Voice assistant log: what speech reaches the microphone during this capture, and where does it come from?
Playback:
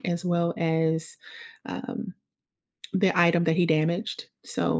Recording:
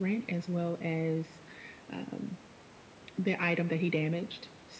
echo only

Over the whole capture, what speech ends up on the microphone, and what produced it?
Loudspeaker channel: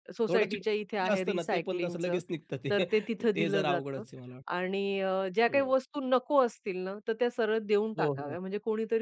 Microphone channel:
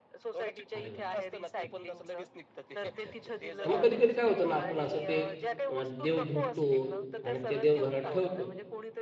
both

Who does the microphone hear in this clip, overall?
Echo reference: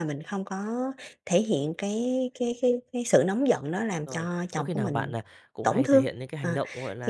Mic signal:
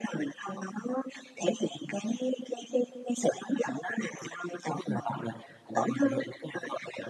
echo only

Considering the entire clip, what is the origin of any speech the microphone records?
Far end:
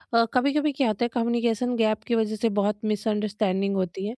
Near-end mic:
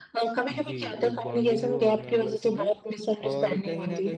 both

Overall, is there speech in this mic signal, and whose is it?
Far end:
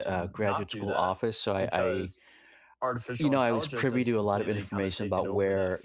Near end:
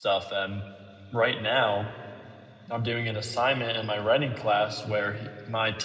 user only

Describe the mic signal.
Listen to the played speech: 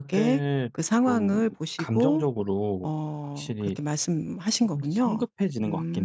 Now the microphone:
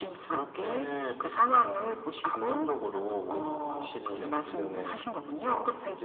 both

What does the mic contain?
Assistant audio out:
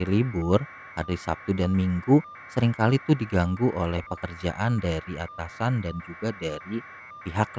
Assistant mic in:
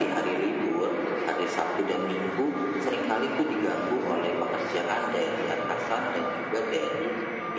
echo only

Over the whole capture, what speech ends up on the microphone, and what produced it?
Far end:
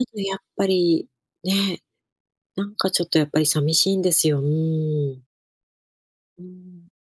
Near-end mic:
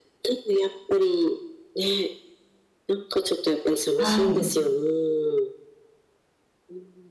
both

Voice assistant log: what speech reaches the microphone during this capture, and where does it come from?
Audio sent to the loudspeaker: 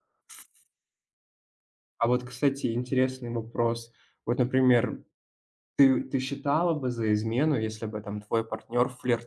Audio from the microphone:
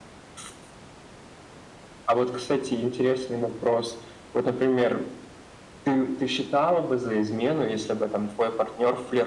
echo only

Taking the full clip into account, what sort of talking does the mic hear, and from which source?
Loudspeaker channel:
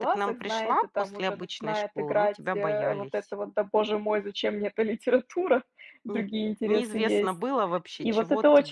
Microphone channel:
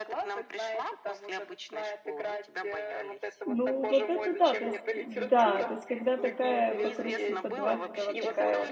both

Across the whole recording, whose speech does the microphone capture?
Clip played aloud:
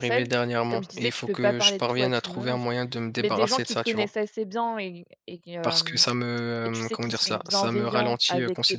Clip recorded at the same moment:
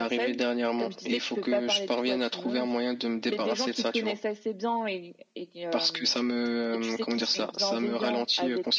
echo only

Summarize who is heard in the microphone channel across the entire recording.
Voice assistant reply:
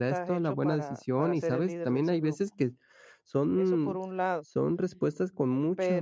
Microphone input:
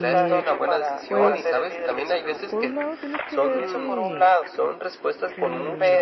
both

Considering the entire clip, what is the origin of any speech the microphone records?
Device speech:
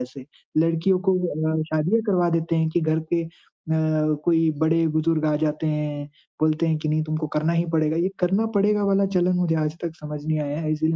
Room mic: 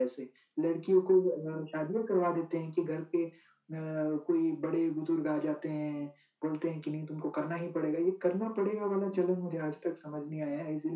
echo only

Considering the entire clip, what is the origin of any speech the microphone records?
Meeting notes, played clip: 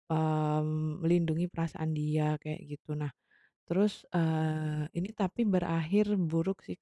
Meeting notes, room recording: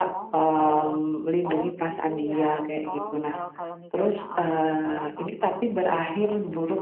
both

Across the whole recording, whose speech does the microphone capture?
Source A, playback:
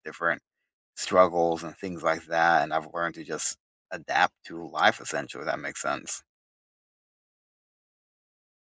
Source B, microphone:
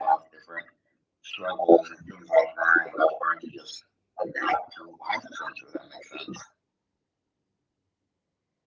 echo only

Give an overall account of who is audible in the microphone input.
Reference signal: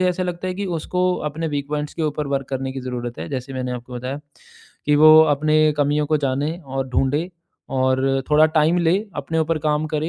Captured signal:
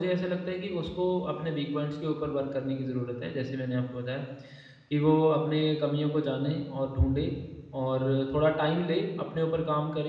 echo only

